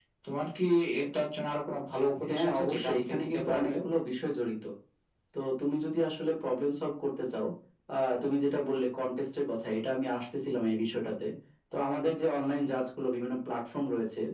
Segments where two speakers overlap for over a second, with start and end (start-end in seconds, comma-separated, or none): 2.3-3.7